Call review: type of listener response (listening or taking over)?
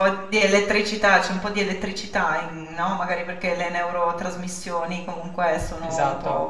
listening